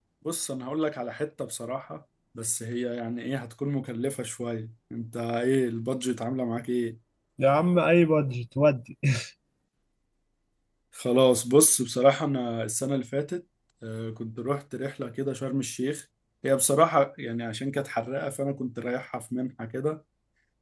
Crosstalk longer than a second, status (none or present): none